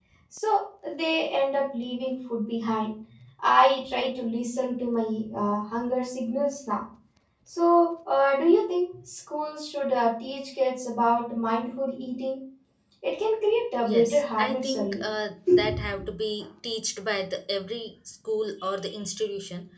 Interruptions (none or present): present